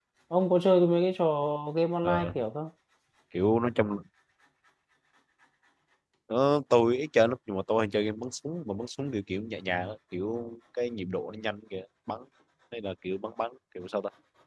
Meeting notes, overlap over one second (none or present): none